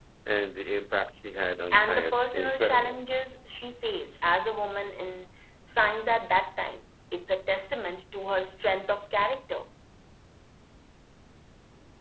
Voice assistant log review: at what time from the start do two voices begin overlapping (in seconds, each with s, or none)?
1.7 s